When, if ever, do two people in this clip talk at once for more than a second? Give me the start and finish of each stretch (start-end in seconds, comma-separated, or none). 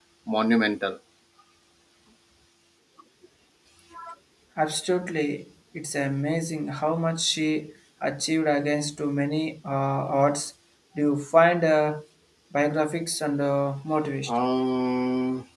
none